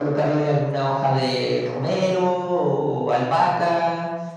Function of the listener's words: listening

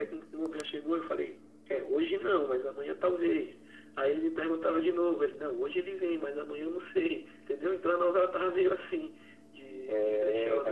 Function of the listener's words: taking over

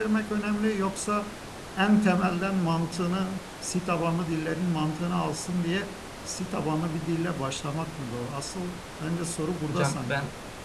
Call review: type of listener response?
taking over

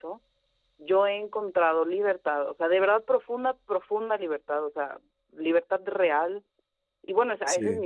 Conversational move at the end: listening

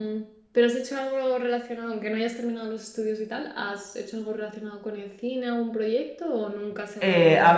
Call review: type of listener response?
taking over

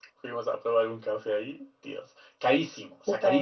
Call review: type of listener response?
listening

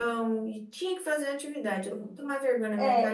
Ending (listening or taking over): taking over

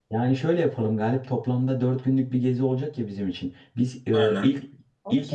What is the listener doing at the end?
listening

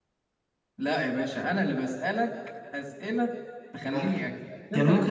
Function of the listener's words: taking over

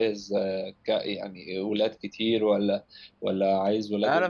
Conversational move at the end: taking over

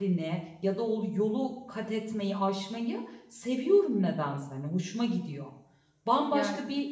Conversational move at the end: listening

